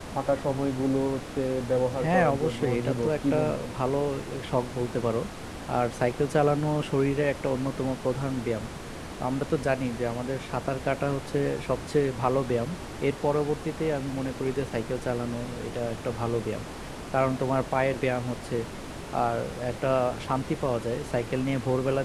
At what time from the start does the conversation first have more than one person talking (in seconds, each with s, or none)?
2.0 s